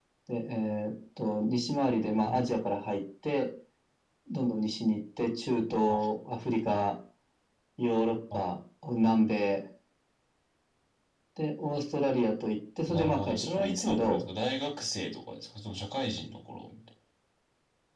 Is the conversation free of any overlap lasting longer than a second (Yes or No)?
No